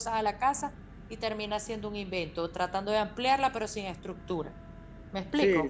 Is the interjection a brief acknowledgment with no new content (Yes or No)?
No